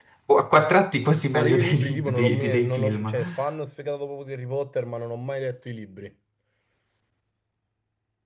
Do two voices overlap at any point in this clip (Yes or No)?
Yes